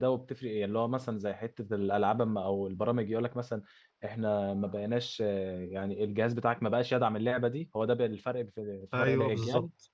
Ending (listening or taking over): taking over